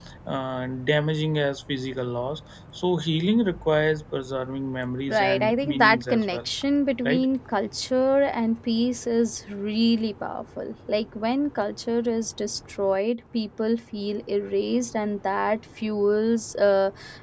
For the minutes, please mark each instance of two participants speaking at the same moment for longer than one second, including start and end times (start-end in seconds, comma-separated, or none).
5.1-6.5